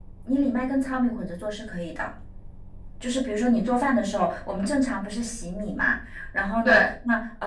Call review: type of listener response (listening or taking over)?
listening